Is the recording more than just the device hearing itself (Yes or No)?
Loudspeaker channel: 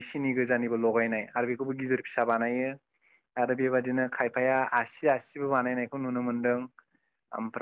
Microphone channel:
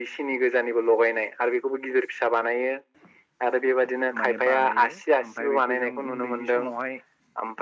Yes